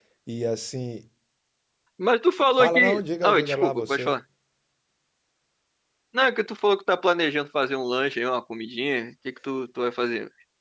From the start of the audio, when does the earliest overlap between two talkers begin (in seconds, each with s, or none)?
2.6 s